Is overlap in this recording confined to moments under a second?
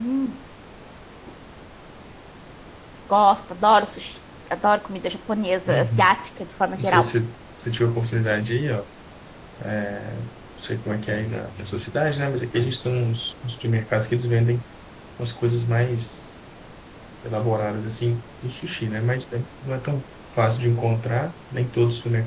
Yes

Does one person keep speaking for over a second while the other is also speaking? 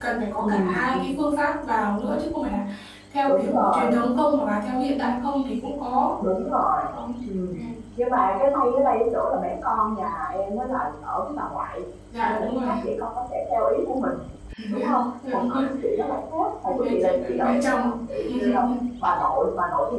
Yes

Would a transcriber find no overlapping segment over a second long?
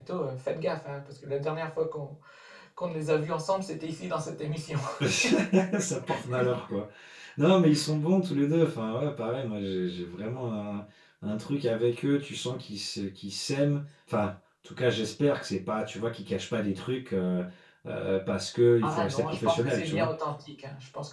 No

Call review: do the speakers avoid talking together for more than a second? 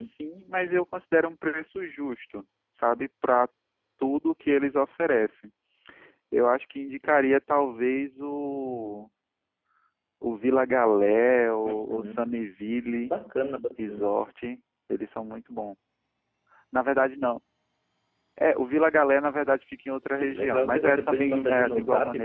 No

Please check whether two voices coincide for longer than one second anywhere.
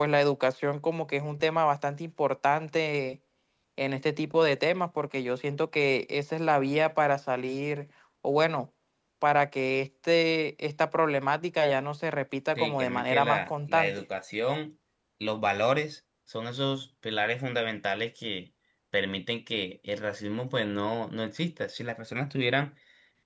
Yes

